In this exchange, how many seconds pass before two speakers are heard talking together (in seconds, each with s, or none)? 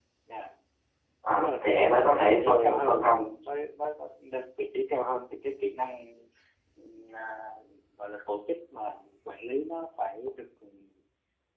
1.3 s